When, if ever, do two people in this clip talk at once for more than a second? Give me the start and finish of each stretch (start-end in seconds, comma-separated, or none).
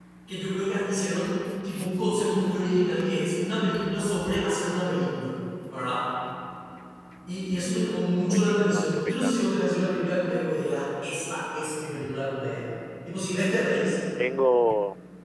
8.3-9.5